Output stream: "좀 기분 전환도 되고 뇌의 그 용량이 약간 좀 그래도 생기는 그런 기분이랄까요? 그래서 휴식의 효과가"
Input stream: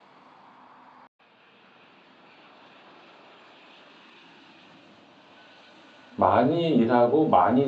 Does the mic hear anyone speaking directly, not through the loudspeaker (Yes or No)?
Yes